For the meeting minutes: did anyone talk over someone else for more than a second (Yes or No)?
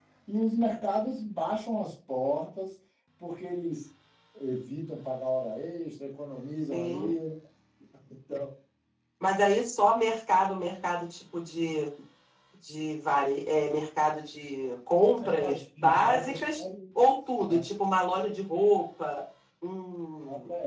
Yes